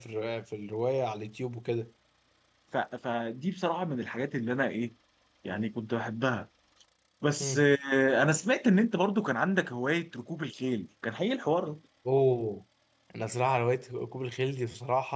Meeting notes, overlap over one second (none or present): none